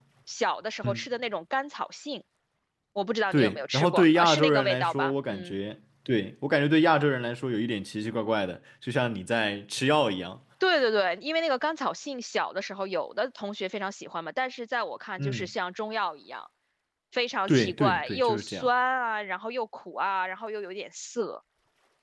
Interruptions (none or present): present